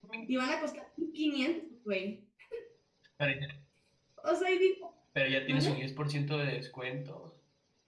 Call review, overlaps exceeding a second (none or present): none